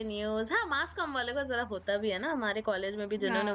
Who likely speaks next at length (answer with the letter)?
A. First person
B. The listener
B